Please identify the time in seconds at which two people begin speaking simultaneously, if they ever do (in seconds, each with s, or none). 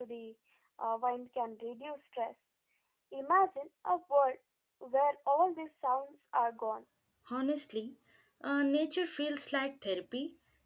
none